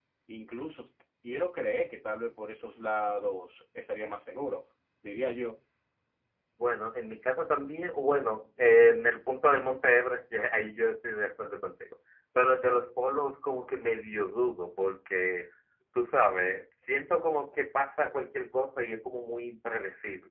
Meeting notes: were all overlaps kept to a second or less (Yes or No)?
Yes